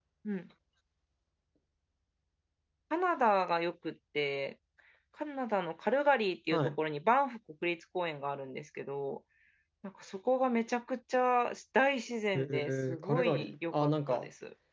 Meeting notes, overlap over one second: present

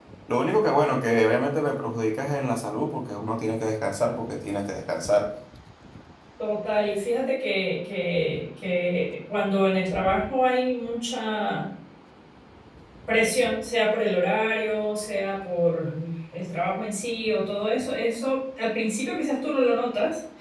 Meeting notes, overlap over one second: none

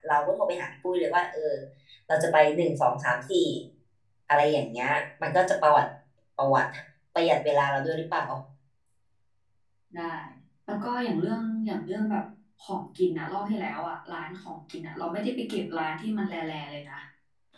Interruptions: none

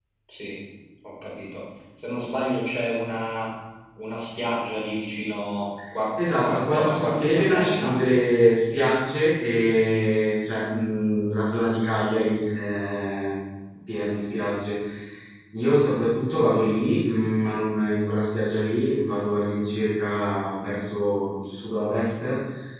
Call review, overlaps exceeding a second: present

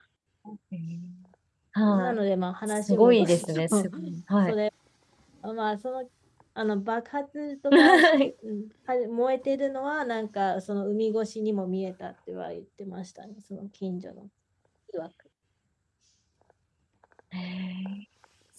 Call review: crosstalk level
present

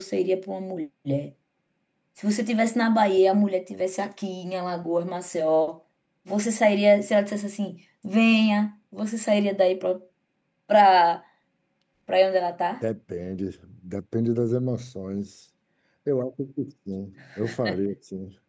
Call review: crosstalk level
none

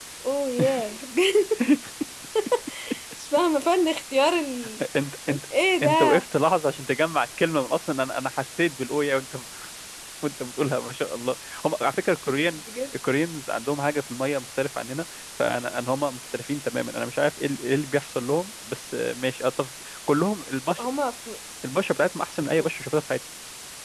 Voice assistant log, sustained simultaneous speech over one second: none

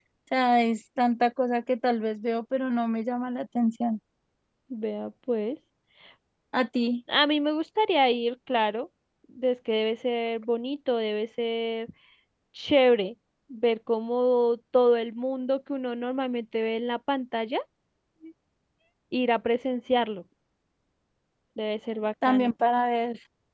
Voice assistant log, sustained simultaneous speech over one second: none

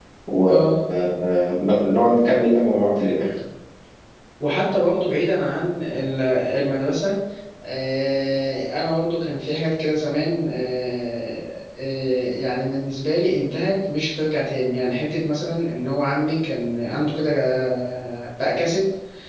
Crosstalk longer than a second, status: none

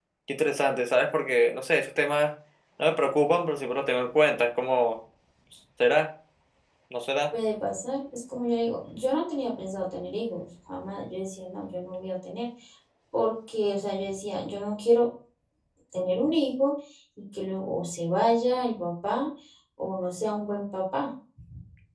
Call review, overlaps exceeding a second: none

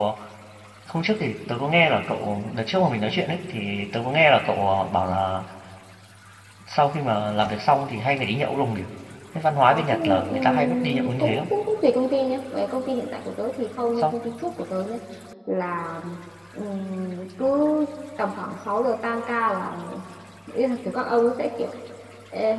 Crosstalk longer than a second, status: present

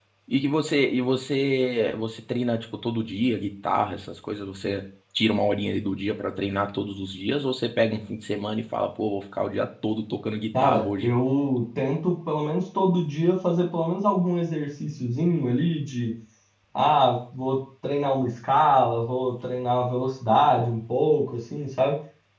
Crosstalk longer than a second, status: none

